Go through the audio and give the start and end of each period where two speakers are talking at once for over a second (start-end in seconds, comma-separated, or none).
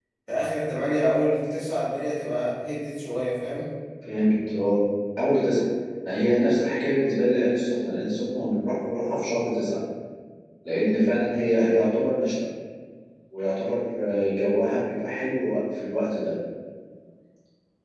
none